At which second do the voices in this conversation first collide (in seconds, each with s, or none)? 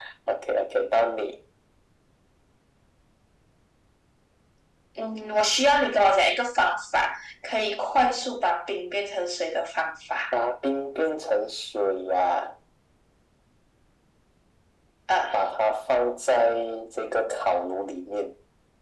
none